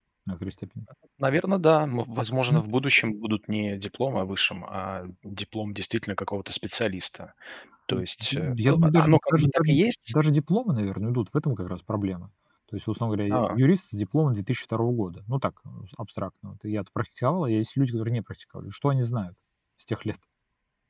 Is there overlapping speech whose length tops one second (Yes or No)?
Yes